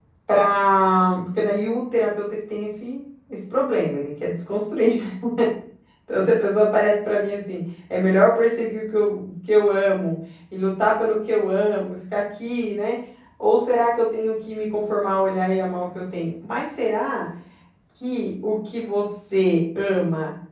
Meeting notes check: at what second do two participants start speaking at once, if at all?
none

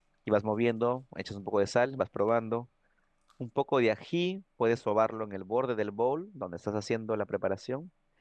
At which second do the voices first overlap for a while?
none

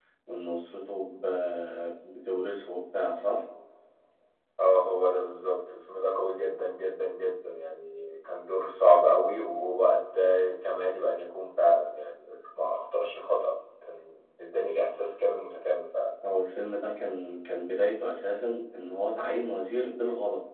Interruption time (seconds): none

